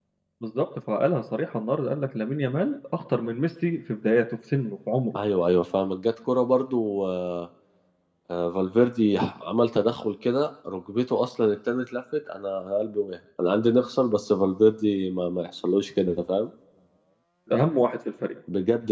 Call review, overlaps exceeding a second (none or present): none